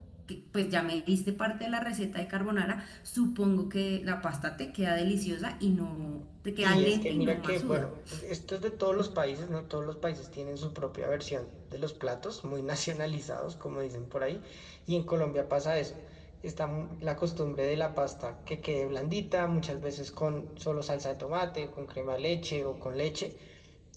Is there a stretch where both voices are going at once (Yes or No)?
Yes